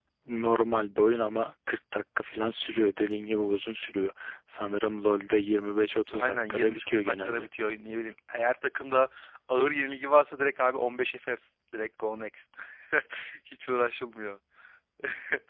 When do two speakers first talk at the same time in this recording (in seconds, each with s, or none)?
6.1 s